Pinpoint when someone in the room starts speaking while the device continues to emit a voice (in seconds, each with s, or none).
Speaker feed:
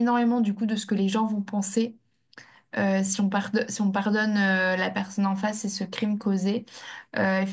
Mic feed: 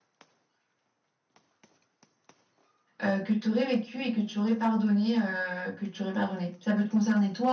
3.0 s